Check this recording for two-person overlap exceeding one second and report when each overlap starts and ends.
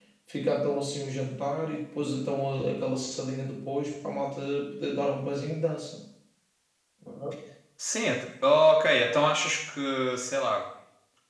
none

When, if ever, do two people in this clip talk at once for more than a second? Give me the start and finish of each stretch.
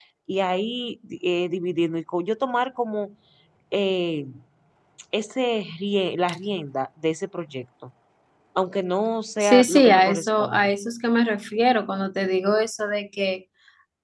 9.4-10.7

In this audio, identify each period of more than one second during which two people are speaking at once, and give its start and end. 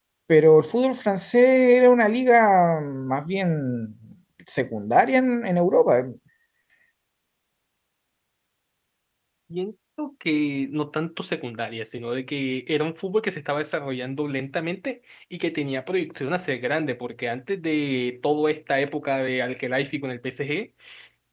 none

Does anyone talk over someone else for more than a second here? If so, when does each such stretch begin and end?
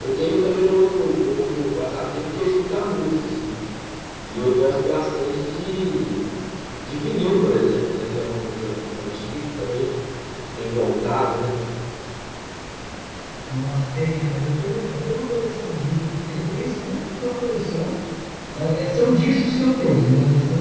none

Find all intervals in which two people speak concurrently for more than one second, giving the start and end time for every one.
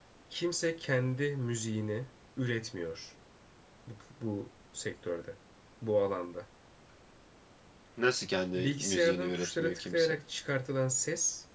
8.5-10.1

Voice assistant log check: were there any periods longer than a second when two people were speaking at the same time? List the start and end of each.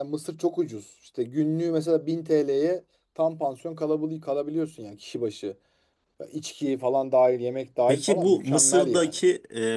7.9-9.2

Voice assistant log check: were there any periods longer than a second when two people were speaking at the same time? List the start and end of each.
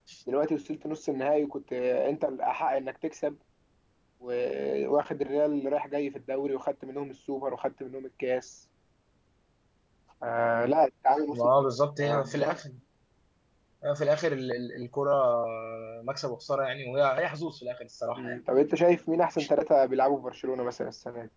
none

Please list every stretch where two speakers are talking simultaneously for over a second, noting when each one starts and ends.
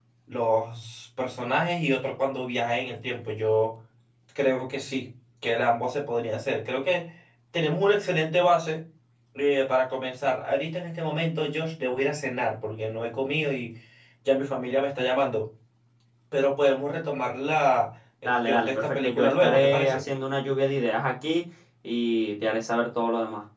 18.2-20.0

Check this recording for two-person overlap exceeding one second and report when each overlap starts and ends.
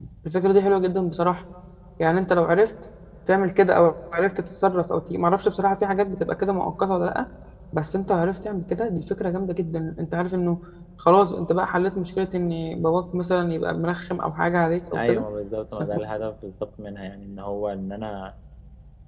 none

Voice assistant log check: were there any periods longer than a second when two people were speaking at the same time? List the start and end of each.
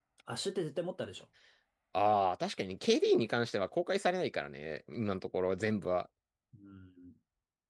none

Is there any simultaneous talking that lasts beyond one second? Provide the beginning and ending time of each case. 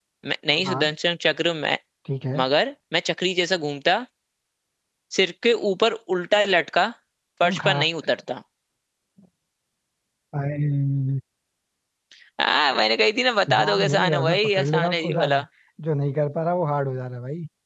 13.5-15.4

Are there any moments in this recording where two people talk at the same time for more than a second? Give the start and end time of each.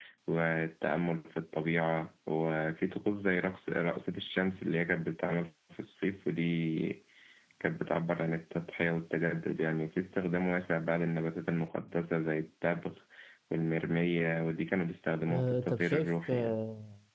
15.3-16.6

